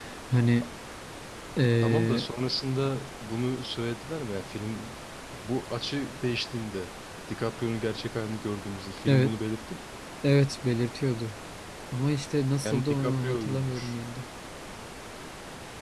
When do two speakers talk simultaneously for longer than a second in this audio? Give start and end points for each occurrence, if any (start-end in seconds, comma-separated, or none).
12.6-14.0